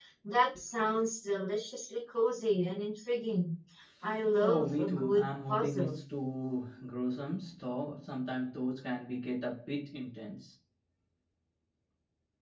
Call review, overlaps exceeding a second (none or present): present